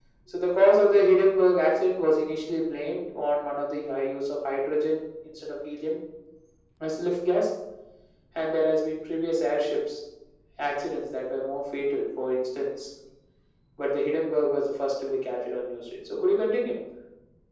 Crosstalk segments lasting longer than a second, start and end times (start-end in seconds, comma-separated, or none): none